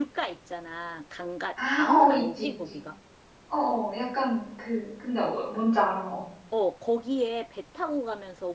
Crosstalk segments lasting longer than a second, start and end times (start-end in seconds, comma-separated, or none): 1.6-2.8